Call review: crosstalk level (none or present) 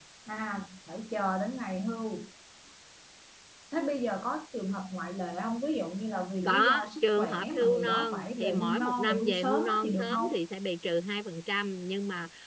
present